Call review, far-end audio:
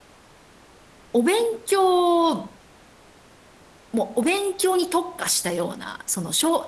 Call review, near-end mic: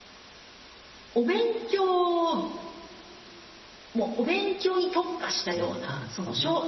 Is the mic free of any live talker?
No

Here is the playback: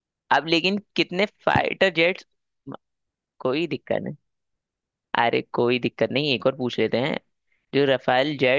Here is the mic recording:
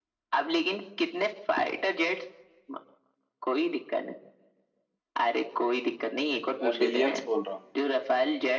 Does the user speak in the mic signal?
Yes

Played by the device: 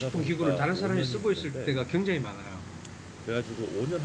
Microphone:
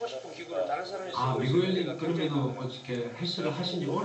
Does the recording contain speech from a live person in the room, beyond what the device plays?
Yes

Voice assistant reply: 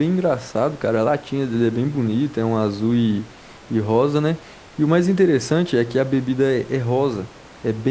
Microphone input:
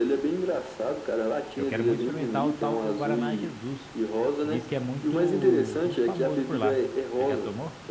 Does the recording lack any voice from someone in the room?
No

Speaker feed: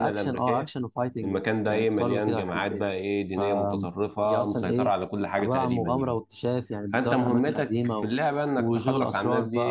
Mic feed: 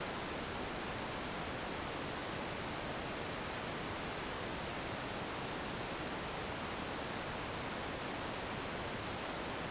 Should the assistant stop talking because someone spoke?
No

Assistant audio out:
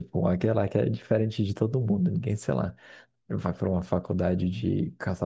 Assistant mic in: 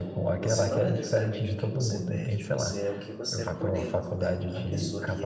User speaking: Yes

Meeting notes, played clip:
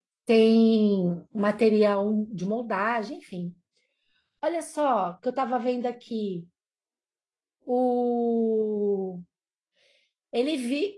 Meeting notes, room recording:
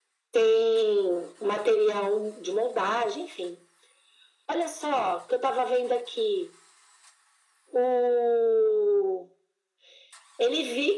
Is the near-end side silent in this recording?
Yes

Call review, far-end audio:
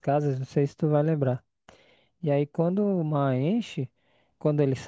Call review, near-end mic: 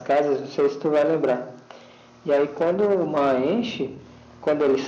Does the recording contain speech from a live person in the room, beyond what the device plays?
No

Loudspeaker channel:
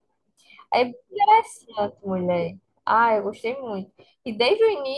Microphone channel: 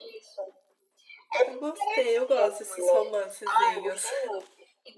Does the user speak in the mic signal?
Yes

